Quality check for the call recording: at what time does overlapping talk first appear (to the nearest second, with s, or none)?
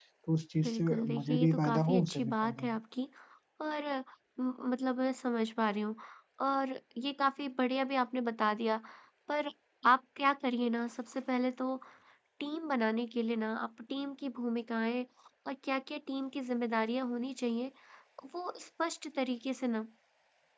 1 s